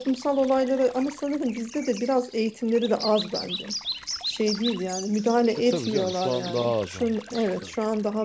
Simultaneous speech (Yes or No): Yes